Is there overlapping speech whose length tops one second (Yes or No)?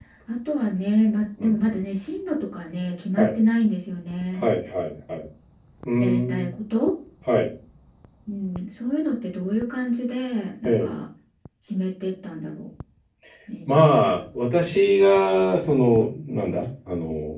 No